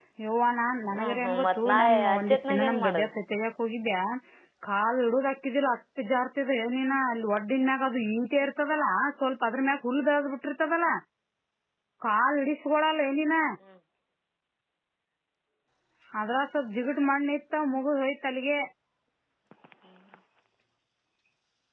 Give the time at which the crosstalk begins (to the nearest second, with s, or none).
1 s